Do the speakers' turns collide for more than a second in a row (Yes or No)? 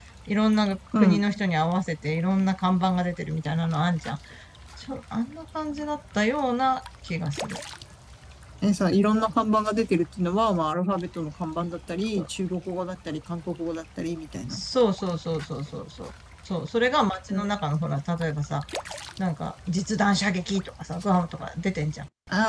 No